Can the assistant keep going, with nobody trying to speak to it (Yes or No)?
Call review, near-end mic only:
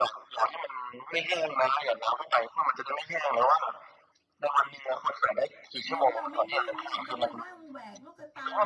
No